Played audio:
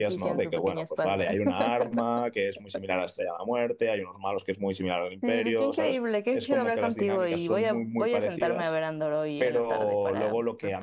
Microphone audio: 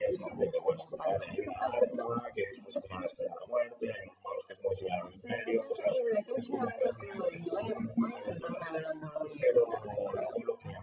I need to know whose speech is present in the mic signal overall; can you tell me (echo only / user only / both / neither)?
echo only